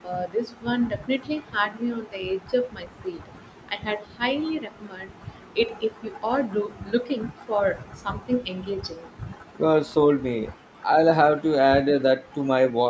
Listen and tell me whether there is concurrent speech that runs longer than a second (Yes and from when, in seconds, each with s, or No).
No